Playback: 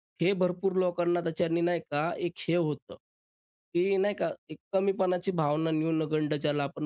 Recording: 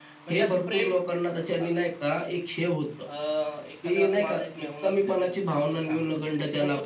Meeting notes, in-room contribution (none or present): present